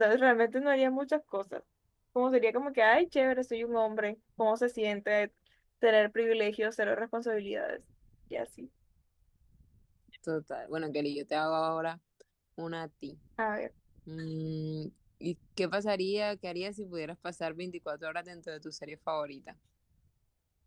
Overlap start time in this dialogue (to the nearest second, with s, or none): none